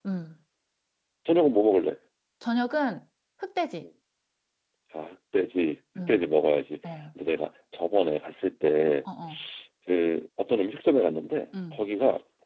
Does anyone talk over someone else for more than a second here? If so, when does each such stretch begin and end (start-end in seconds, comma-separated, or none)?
none